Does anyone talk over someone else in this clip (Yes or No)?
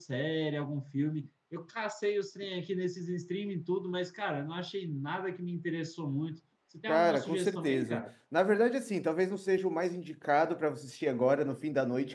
Yes